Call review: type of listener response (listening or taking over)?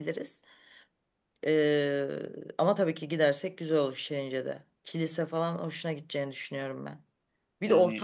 listening